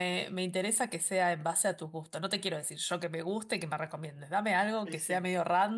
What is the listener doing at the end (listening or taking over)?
listening